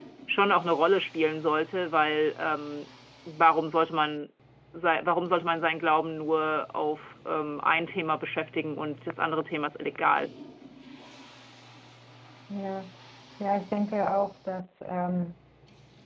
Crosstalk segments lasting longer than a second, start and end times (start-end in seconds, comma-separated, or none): none